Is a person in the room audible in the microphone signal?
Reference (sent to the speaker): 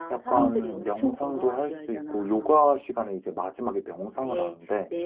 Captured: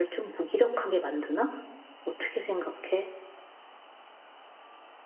Yes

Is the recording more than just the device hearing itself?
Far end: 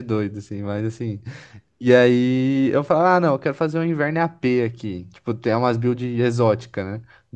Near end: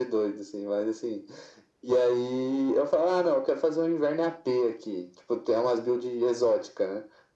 No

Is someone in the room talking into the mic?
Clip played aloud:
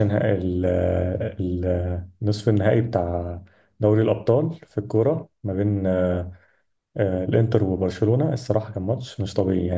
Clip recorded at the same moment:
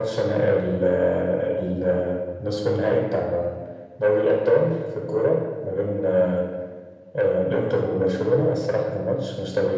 No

